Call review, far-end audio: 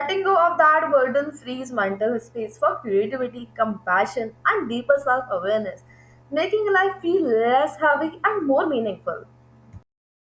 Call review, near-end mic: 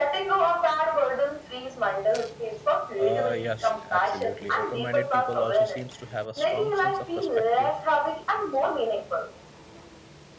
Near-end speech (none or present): present